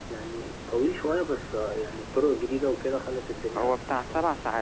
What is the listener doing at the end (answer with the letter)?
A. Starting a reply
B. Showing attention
A